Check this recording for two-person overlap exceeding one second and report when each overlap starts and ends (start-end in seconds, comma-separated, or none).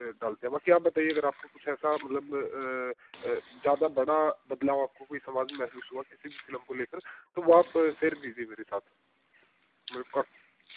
none